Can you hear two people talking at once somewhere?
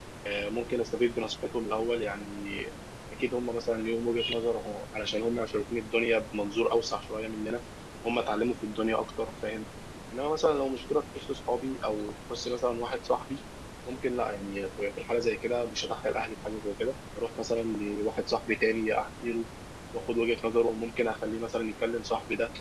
No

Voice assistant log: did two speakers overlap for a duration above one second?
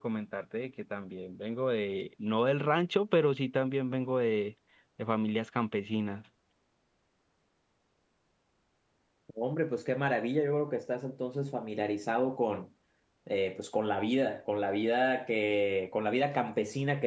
No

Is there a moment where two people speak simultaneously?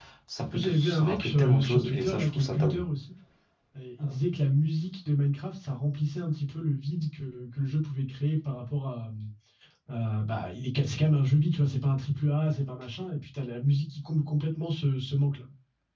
Yes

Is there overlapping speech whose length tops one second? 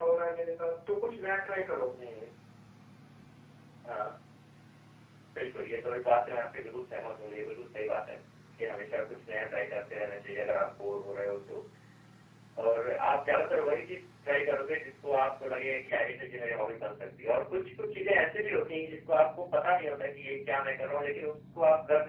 No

